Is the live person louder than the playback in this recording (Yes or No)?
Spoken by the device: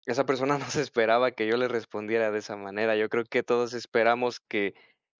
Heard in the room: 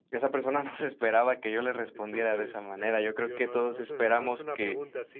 No